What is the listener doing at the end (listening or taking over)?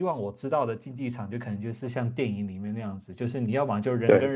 listening